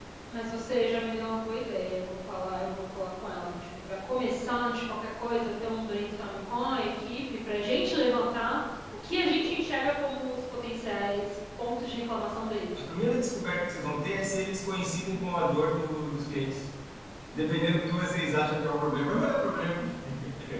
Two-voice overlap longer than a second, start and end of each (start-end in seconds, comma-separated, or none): none